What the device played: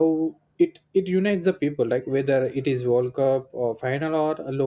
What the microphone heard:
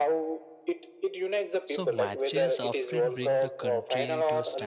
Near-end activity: present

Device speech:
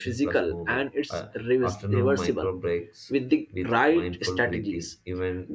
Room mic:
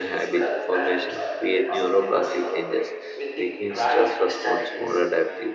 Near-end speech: present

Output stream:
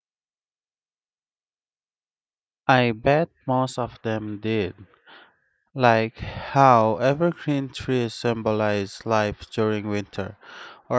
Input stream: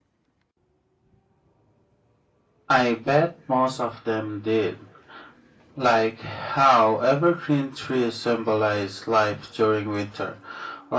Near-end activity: none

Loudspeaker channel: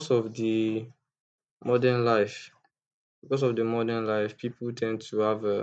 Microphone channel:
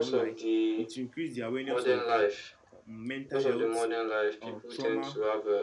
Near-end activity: present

